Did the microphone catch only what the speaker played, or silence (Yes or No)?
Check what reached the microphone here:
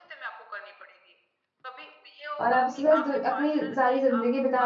No